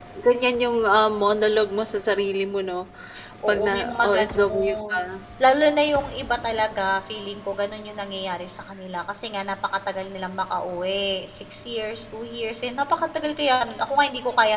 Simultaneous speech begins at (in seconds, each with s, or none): 3.5 s